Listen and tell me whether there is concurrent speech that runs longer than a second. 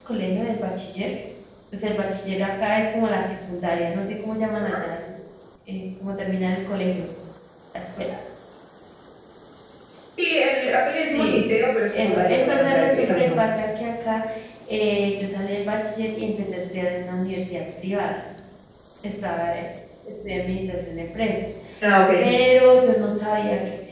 Yes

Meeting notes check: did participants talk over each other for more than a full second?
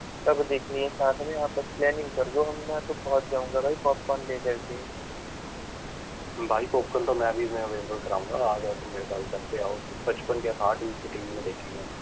No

